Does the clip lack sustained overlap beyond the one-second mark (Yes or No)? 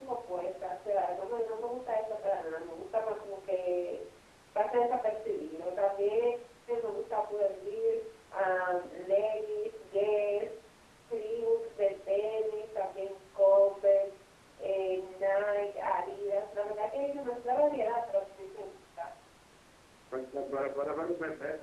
Yes